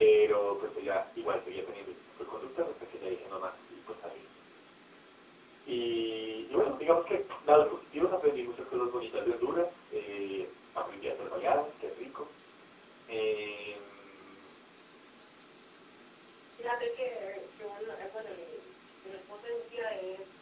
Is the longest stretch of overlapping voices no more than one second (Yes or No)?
Yes